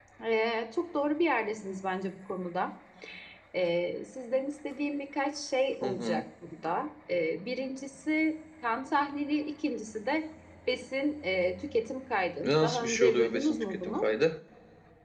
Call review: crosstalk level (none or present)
present